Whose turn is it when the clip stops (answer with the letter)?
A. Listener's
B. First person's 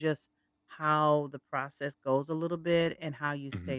B